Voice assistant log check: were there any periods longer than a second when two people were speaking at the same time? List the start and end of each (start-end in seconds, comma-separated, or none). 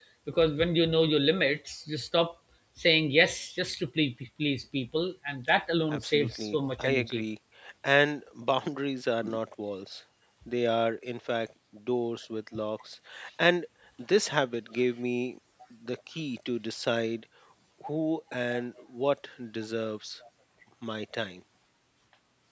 5.9-7.2